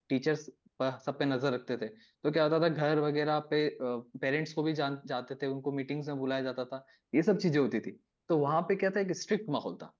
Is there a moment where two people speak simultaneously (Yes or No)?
No